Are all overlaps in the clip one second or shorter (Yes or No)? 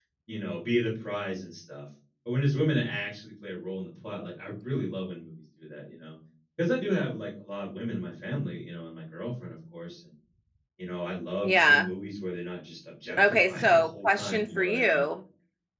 No